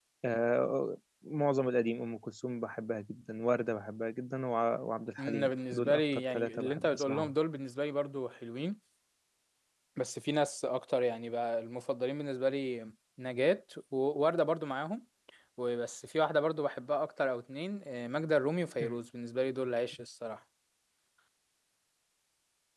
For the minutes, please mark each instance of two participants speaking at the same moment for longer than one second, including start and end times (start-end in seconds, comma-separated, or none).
5.2-7.3